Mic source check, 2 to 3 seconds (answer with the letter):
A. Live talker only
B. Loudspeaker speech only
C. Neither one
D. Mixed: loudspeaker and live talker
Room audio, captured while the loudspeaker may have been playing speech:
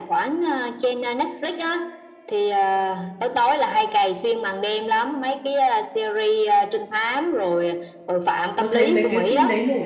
B